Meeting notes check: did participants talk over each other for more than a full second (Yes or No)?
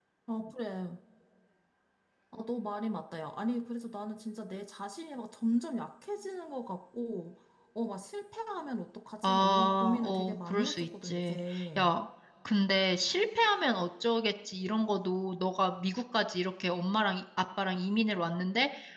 Yes